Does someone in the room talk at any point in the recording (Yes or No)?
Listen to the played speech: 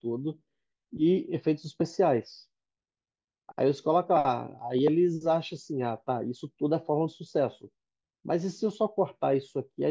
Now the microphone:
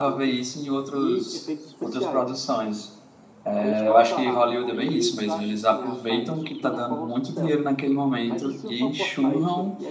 Yes